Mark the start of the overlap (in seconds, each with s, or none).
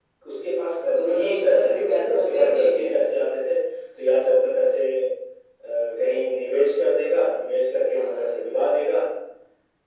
1.0 s